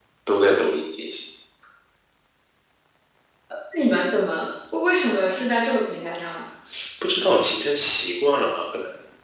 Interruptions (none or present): none